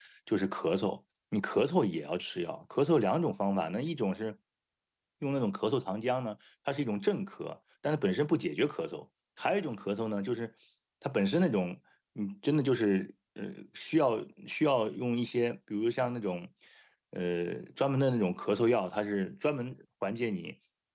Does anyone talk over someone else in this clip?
No

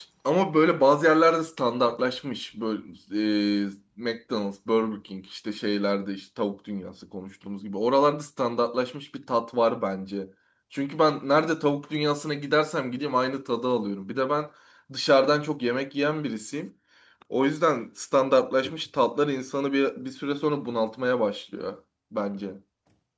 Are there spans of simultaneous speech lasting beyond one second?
No

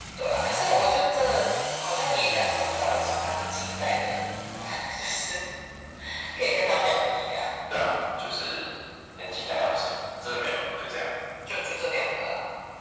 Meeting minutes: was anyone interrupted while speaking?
No

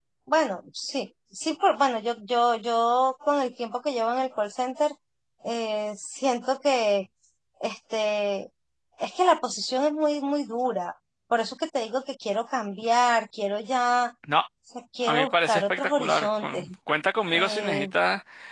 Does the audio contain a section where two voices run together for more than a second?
Yes, from 15.1 s

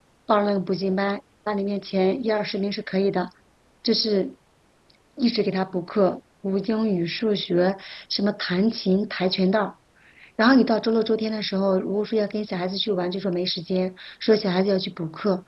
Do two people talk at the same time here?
No

